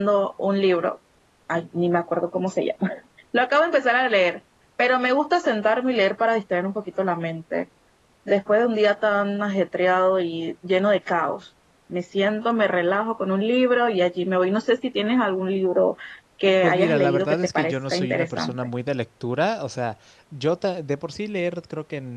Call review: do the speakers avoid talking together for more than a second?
No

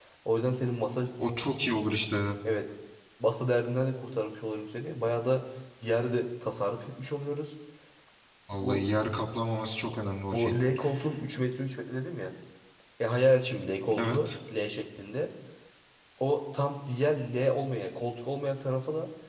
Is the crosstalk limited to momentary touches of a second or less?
Yes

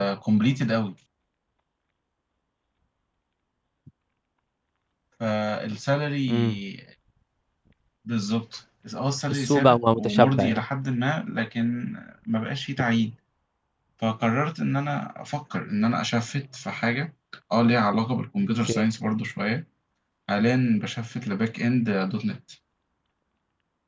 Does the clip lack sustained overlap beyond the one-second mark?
No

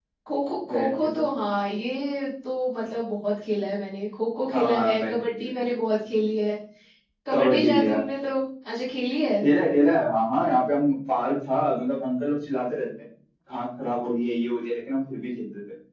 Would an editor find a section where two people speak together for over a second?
Yes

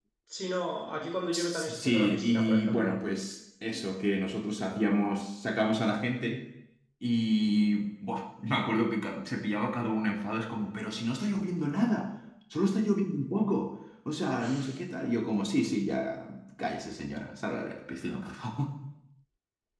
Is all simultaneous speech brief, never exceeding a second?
No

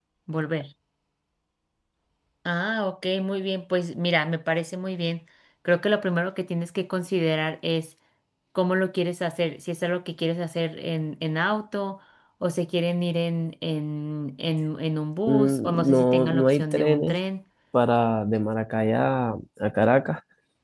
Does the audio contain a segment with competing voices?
Yes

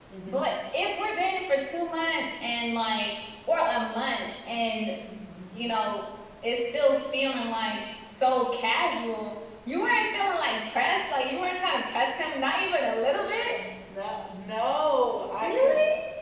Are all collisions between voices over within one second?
Yes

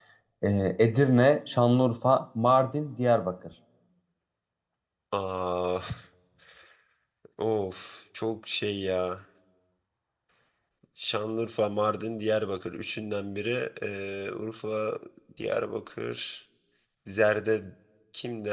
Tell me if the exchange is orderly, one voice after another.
Yes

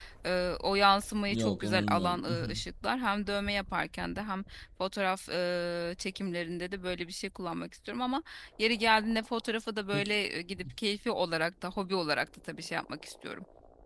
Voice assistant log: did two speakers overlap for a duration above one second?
Yes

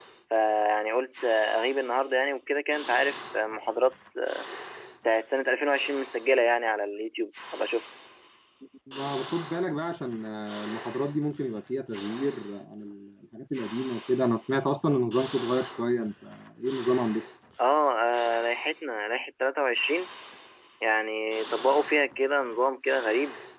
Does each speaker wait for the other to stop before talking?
Yes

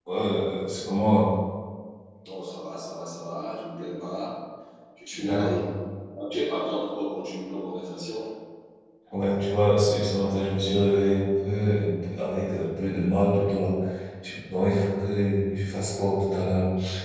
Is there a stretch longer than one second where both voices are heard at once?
No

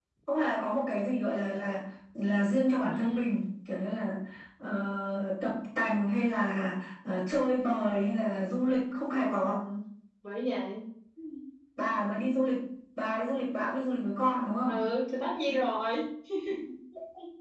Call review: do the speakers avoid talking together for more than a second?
Yes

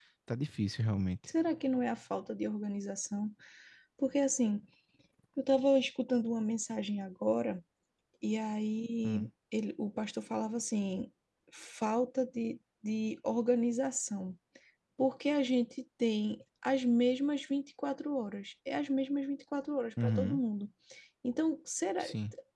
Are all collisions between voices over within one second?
Yes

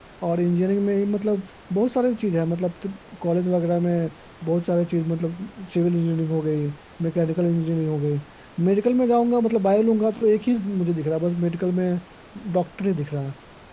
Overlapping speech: No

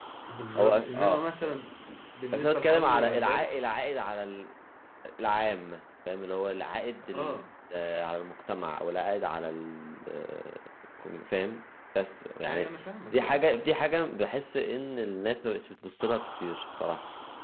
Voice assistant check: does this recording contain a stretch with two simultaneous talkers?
Yes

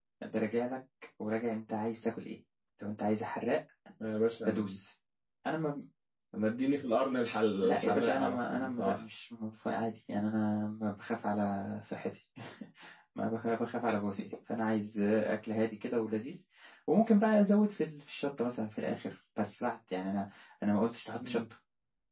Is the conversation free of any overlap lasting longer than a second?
No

